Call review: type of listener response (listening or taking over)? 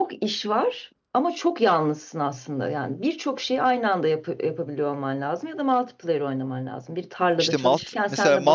taking over